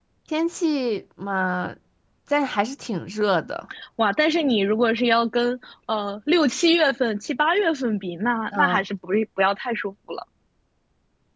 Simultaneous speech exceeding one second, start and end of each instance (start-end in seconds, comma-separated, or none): none